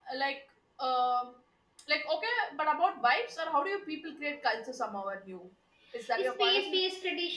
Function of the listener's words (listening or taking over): taking over